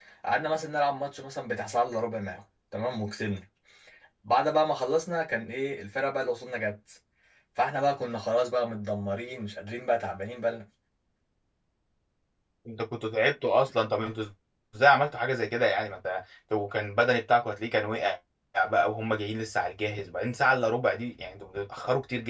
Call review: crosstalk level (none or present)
none